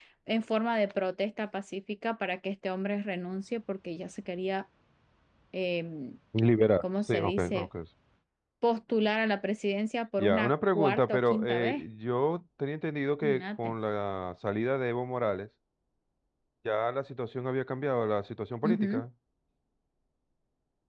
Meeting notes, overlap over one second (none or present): present